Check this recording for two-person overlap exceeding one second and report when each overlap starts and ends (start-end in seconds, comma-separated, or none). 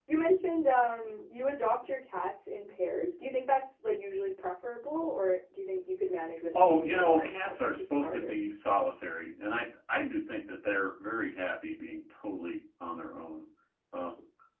6.5-8.4